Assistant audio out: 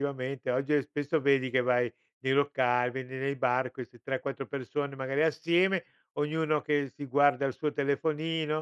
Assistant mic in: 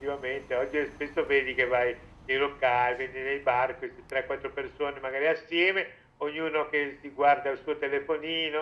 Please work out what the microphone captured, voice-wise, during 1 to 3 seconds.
echo only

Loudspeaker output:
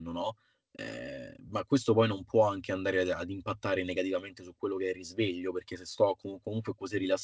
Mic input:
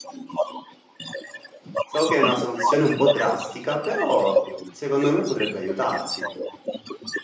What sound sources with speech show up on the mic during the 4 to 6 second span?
both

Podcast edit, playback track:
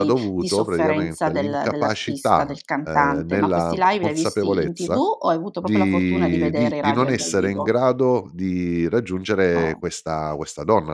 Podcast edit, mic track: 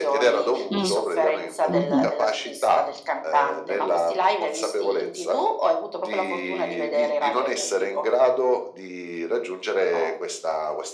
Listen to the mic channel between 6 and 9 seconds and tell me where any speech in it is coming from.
echo only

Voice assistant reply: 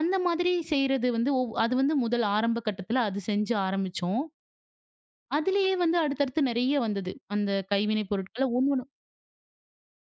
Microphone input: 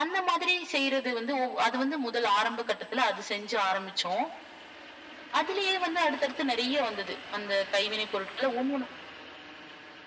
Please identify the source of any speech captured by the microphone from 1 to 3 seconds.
echo only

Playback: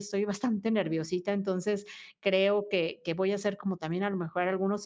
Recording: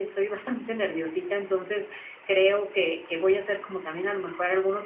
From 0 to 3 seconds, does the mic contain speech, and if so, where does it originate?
echo only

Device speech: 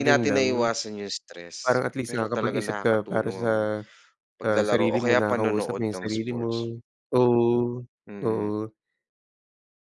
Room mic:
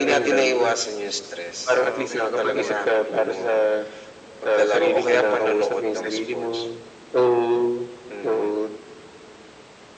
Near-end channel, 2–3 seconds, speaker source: both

